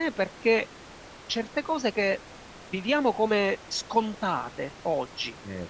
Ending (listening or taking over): listening